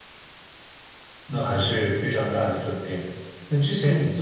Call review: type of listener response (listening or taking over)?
listening